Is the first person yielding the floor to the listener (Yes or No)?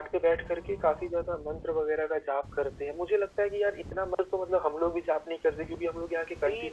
Yes